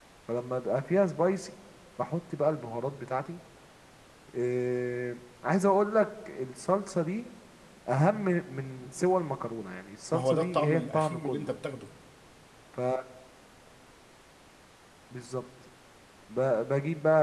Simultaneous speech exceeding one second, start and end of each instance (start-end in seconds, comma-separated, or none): 10.1-11.5